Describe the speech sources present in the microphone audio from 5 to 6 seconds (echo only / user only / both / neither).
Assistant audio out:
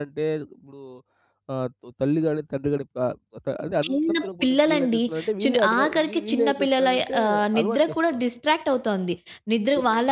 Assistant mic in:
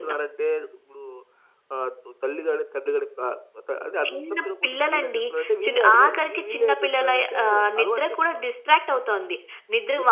echo only